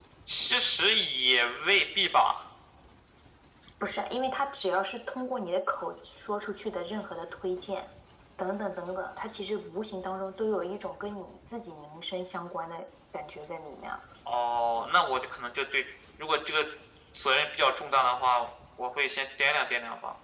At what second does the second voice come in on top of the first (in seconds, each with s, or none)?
none